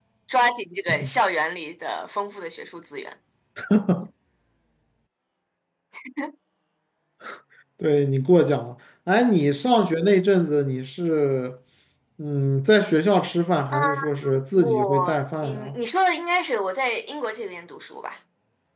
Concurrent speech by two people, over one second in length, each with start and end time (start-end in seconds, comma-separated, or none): 14.6-15.8